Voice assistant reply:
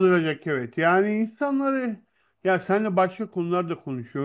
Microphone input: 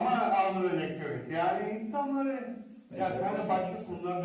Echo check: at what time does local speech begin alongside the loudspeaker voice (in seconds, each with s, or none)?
2.9 s